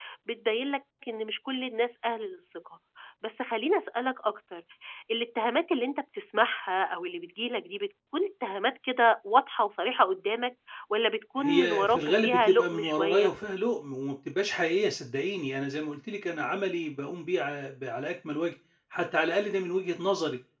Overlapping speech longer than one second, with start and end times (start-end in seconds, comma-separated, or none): 11.4-13.3